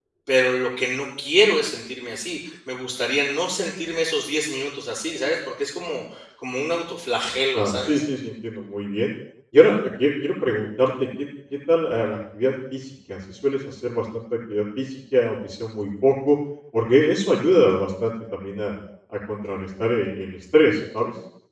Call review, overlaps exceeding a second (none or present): none